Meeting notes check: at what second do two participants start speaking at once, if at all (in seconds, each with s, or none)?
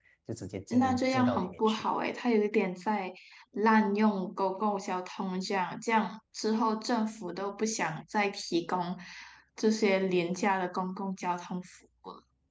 0.7 s